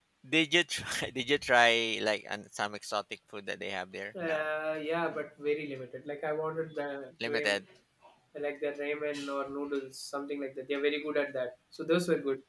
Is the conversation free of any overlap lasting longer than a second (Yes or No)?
Yes